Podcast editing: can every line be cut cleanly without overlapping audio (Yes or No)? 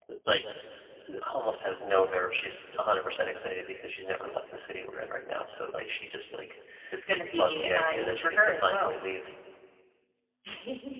No